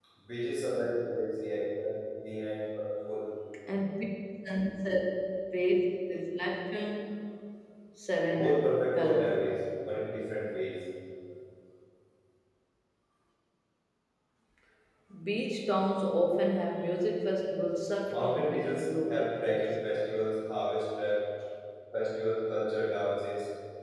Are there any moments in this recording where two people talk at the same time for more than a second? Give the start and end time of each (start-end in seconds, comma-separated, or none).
8.3-9.6, 18.1-19.7